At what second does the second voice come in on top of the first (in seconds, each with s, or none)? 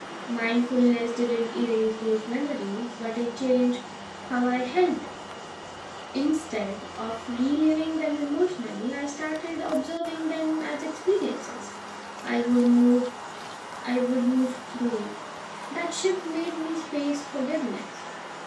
none